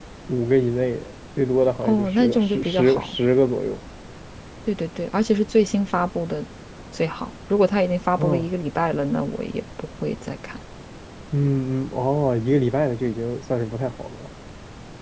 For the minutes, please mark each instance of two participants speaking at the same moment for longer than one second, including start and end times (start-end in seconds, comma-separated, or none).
1.8-3.1